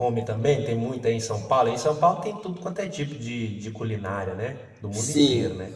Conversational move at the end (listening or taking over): taking over